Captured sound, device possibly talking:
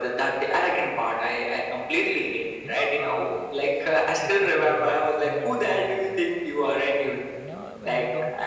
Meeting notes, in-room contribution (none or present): present